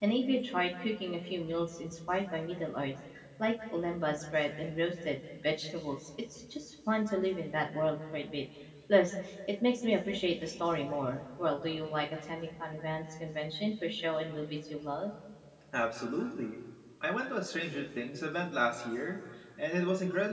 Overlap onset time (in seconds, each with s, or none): none